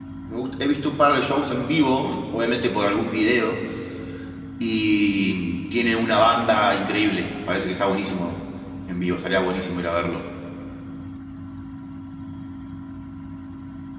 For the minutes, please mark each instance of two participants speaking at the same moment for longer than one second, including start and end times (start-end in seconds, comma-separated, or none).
none